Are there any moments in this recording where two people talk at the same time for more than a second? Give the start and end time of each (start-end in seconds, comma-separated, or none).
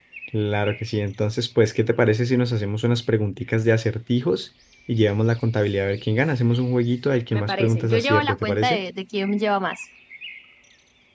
7.3-8.8